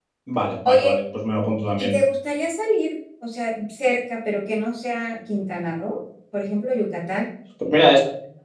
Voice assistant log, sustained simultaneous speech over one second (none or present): none